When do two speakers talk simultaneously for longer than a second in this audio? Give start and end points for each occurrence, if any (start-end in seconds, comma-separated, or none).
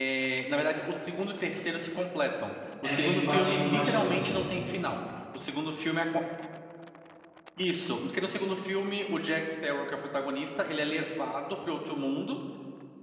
2.8-4.4